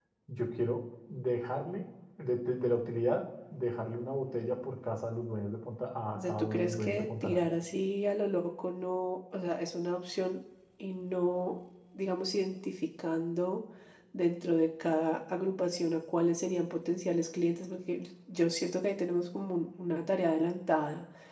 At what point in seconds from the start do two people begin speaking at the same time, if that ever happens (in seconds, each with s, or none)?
6.2 s